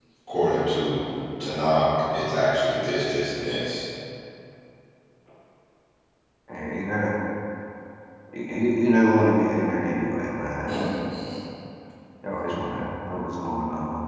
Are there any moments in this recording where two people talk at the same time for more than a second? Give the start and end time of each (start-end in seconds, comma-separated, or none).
none